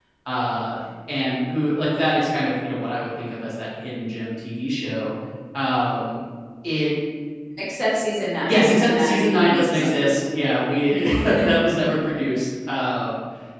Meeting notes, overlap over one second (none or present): present